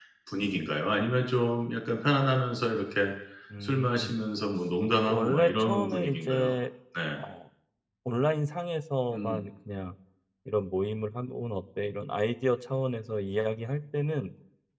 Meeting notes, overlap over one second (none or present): present